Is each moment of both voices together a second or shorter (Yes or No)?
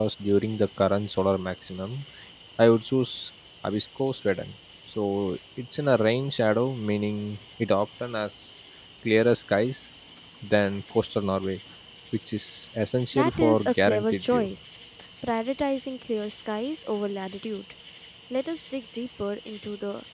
No